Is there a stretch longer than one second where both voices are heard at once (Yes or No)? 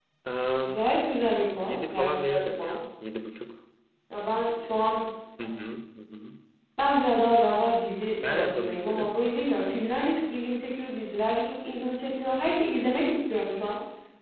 Yes